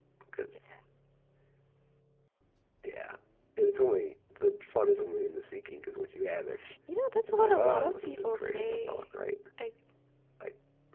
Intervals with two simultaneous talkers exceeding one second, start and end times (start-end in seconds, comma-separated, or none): 7.2-9.0